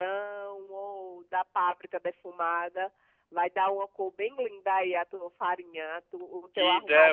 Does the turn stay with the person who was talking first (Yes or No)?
No